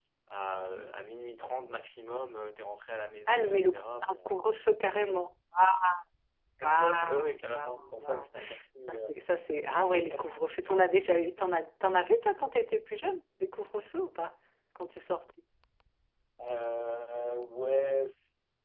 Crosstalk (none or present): present